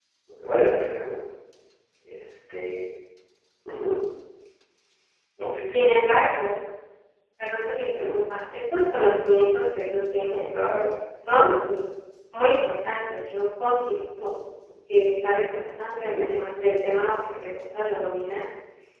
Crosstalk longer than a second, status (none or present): none